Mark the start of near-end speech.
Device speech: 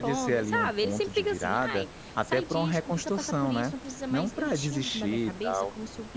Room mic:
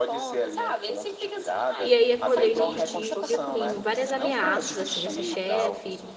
1.8 s

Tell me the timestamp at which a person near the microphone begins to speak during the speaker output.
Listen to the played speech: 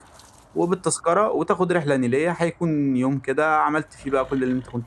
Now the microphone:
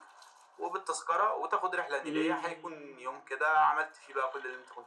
2.0 s

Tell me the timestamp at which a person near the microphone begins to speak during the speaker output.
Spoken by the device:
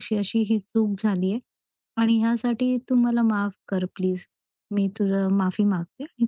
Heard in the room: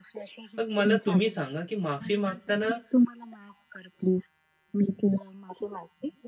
0.6 s

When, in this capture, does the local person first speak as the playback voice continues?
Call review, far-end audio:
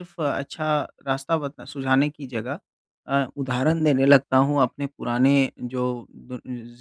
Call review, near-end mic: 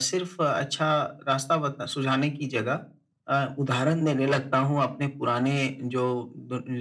none

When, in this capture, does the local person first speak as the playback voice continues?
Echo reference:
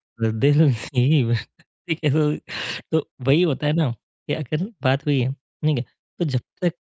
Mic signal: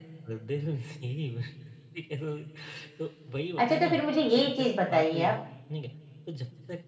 3.6 s

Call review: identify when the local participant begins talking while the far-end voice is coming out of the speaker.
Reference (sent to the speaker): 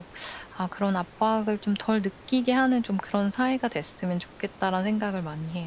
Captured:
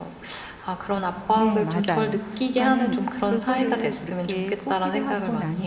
1.3 s

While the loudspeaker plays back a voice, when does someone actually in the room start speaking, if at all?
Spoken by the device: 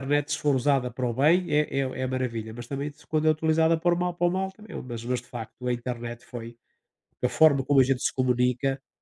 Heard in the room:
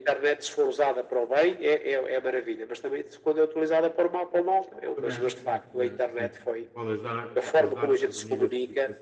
4.9 s

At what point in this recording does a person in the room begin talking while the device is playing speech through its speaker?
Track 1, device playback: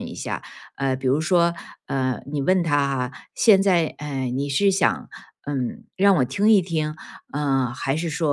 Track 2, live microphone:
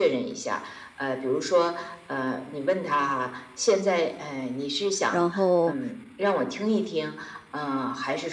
5.1 s

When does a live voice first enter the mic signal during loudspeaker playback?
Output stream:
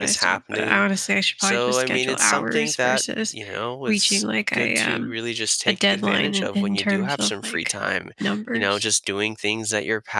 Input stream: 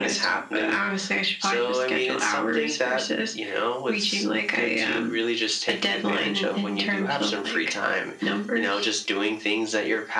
none

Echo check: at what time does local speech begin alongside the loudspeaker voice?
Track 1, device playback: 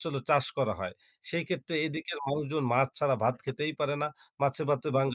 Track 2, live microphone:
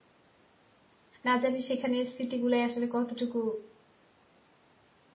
1.2 s

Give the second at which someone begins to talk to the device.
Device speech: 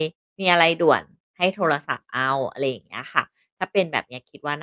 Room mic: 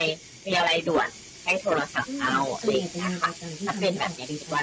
2.1 s

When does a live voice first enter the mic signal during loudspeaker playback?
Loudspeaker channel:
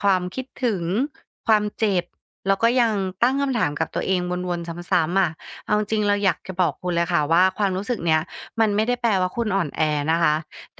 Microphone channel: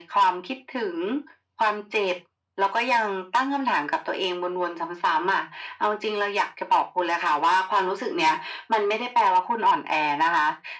none

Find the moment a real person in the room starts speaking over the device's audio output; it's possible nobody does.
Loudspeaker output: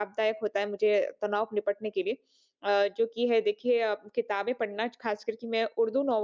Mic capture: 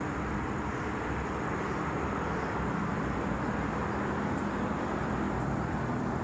none

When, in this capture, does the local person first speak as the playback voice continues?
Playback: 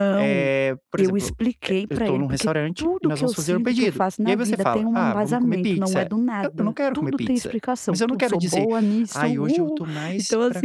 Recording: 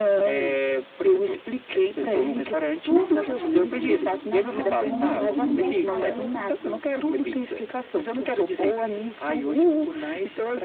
2.0 s

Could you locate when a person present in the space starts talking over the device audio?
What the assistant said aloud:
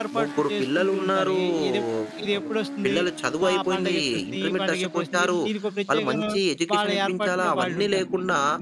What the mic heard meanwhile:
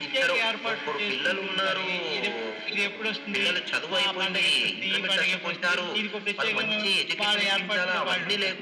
none

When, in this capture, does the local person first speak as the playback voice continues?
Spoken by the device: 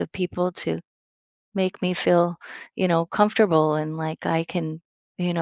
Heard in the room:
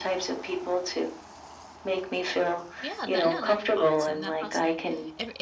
2.8 s

